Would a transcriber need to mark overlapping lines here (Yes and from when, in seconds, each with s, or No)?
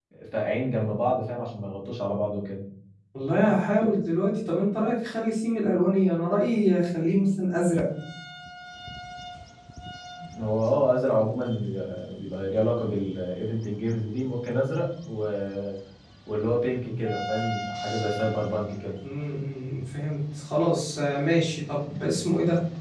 No